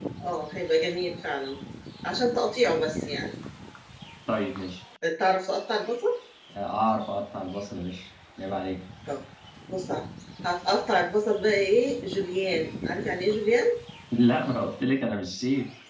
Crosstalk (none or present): none